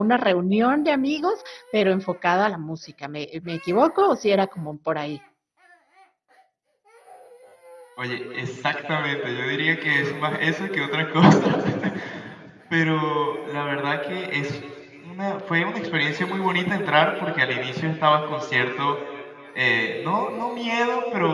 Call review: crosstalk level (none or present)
none